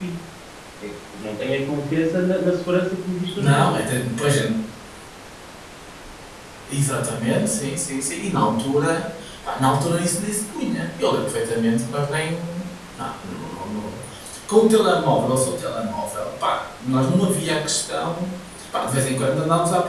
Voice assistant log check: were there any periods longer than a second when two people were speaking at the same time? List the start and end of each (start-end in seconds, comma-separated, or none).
none